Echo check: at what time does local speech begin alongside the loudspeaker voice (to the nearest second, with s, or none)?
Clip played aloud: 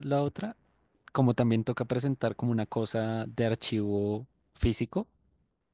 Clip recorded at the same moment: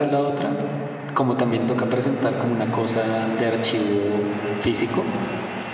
none